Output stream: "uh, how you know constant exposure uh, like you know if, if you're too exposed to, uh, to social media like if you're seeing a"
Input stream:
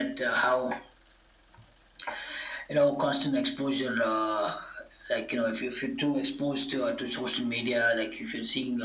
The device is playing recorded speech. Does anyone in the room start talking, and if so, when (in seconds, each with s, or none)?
none